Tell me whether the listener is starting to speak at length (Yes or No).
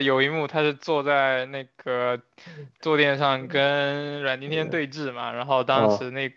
No